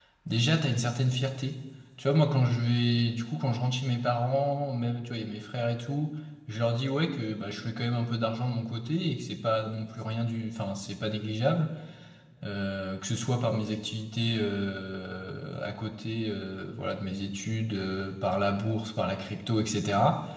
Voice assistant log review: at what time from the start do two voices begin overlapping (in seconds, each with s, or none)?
none